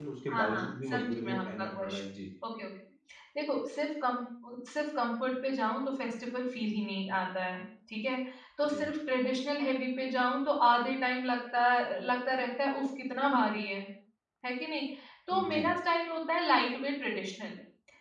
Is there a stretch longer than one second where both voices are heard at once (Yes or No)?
Yes